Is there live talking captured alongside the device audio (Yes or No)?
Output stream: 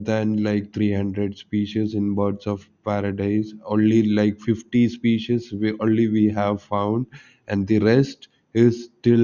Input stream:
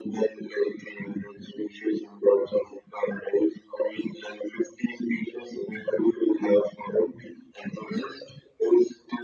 No